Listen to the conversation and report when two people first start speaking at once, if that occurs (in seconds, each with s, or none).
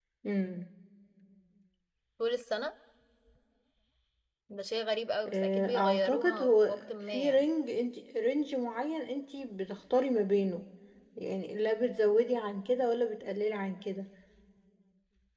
5.3 s